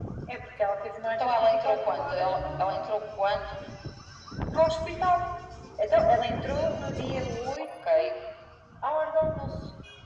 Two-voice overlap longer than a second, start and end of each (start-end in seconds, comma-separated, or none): 1.1-3.0